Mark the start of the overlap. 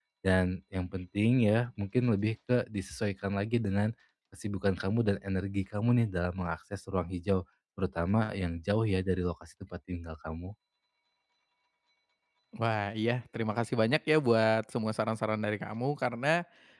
none

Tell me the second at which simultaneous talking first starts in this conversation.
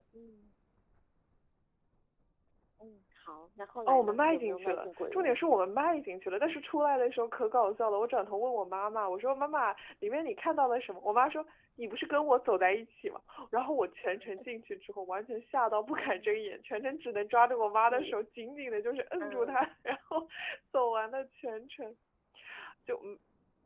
3.9 s

